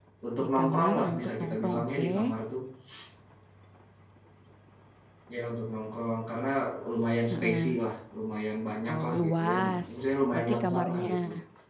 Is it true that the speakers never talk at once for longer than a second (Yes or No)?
No